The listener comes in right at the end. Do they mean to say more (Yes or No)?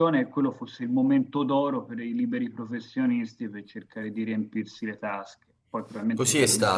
Yes